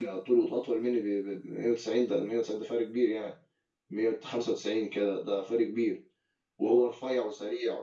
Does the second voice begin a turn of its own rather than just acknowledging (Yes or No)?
No